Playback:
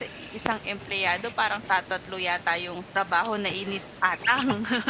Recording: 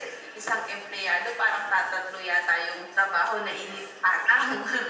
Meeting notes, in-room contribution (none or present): none